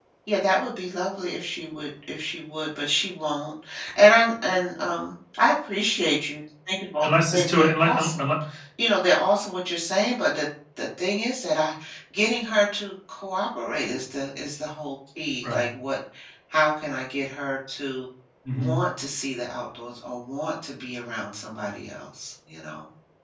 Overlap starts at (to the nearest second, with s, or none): 7 s